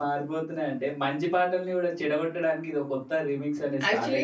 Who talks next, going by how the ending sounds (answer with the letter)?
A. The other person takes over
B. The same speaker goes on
A